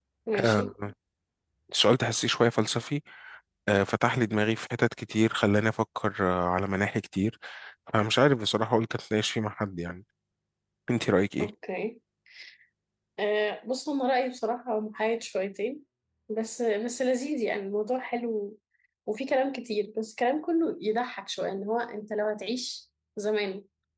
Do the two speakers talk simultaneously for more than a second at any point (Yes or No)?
No